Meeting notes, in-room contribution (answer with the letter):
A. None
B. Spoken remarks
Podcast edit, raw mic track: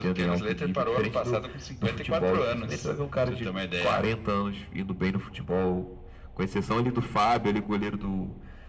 A